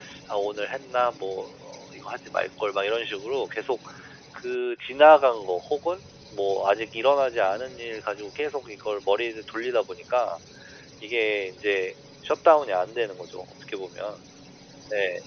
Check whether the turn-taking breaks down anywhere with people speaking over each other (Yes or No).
No